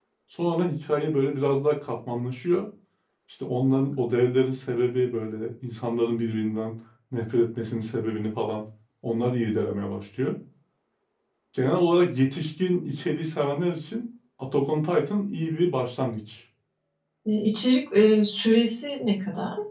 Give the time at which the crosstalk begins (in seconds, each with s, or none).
none